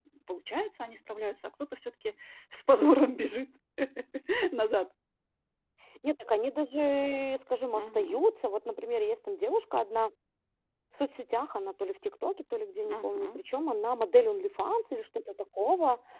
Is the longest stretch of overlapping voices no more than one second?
Yes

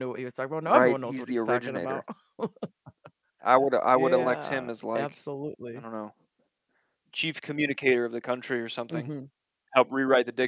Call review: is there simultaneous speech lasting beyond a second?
Yes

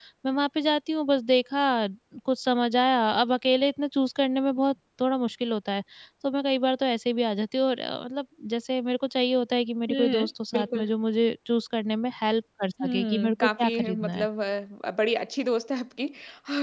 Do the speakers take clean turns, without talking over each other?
No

